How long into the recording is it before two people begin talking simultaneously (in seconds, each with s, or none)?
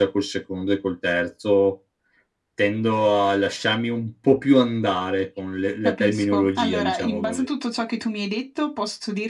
5.8 s